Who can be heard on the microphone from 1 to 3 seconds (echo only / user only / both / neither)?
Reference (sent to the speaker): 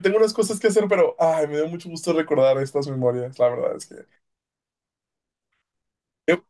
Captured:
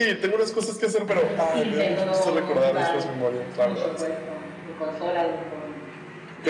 both